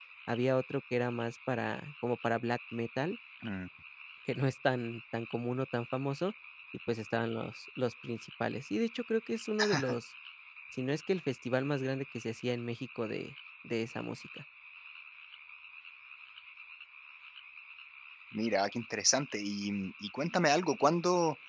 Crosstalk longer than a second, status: none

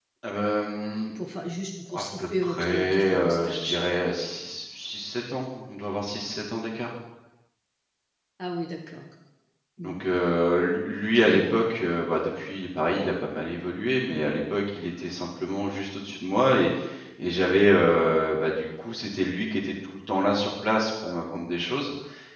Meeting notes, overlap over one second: present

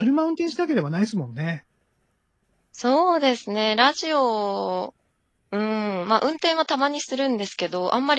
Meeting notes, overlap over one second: none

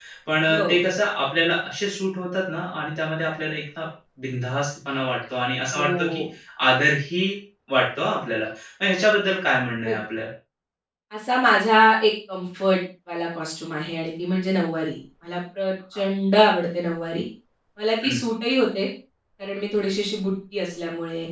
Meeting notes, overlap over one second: none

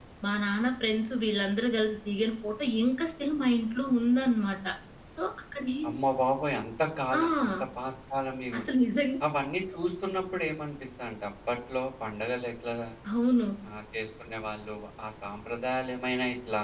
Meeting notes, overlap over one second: none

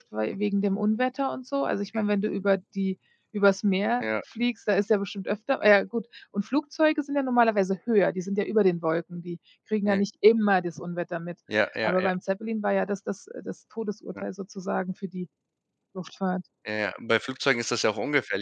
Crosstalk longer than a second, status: none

